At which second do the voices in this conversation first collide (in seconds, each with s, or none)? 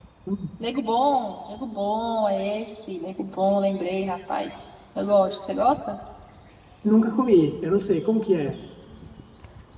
none